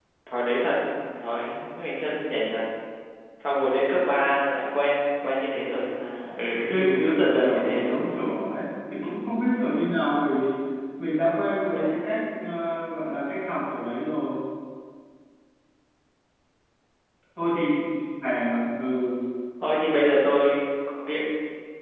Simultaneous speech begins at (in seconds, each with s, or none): 6.7 s